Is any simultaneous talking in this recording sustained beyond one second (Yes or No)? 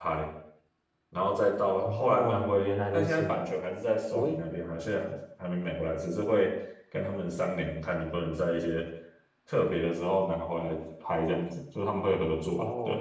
Yes